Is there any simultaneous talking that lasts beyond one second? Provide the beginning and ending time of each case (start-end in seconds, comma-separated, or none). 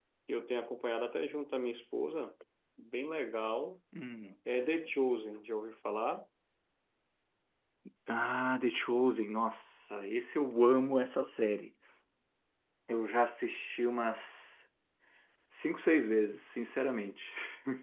none